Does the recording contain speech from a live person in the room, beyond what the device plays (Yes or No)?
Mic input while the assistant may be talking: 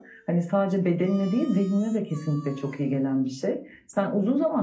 No